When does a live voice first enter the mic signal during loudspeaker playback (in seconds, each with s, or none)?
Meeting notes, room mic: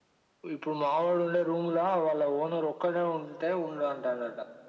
none